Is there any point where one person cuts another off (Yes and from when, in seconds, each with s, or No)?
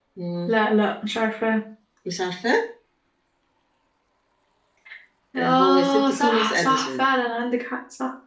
Yes, from 5.4 s